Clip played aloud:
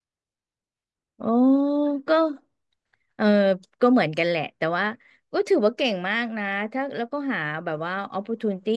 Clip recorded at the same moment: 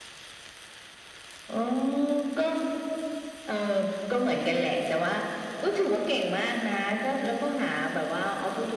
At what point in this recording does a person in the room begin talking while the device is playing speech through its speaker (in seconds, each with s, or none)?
none